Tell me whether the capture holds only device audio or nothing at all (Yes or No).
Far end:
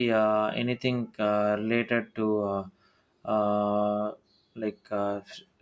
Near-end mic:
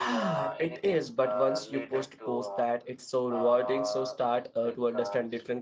No